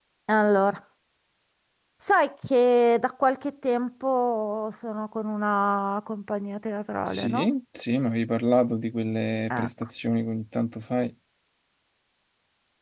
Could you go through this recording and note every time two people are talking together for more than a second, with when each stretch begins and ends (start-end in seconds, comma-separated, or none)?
none